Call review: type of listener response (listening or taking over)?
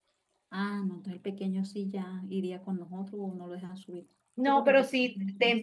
taking over